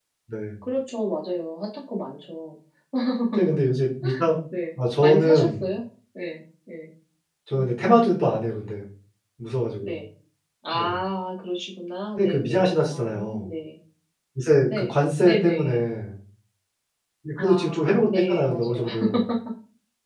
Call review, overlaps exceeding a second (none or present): present